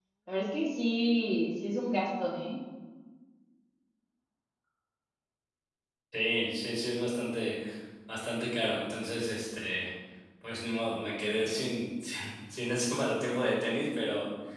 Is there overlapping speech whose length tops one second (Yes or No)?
No